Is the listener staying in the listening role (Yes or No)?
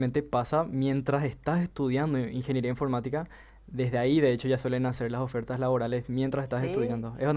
No